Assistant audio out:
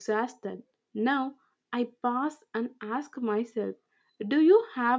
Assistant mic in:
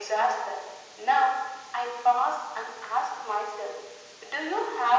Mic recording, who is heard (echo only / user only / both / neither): echo only